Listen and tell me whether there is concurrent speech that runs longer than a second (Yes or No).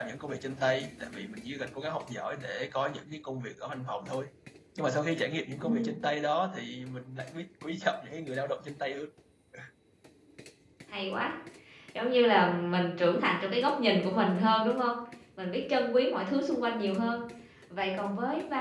No